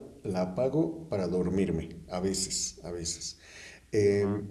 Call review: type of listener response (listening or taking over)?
listening